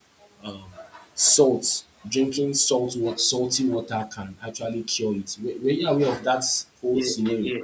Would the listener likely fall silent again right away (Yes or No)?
No